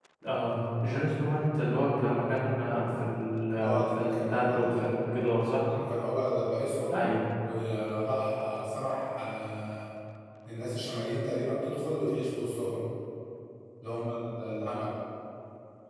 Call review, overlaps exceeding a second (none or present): present